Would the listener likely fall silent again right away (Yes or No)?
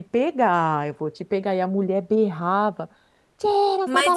No